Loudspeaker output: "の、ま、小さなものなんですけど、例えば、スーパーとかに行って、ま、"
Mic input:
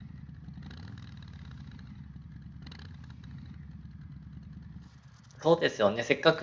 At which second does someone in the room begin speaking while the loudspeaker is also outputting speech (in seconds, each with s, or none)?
5.4 s